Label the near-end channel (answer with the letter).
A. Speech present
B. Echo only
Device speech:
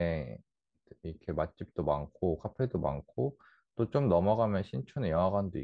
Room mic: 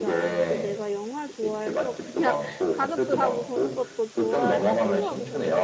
A